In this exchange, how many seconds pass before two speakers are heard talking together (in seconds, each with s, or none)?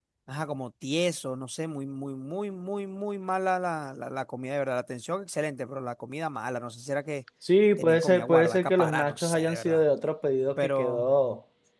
7.8 s